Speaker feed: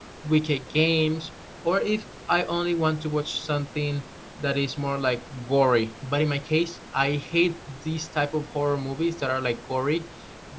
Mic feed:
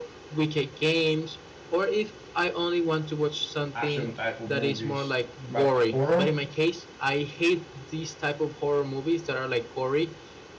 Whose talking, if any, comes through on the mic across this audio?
both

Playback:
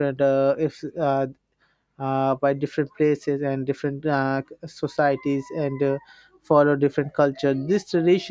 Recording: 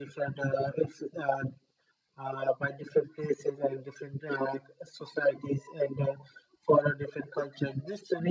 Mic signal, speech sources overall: echo only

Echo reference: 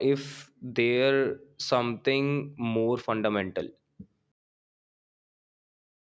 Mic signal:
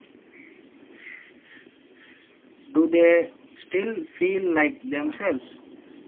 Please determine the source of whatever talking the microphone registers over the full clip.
user only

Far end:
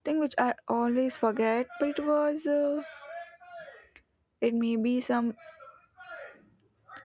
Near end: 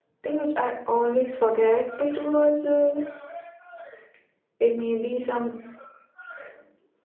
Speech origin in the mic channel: echo only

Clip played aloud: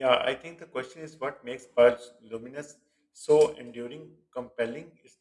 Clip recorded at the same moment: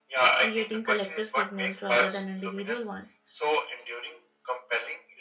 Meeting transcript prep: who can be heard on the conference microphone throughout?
both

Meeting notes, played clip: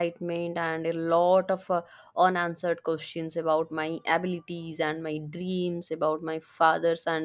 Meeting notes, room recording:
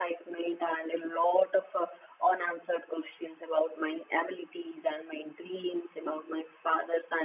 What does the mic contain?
echo only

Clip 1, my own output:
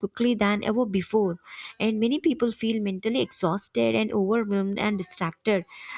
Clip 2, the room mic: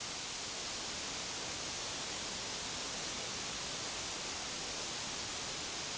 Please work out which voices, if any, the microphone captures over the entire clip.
neither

